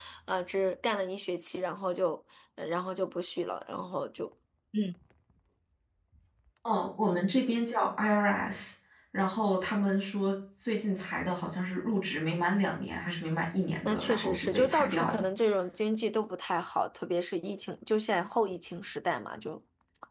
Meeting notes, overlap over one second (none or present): present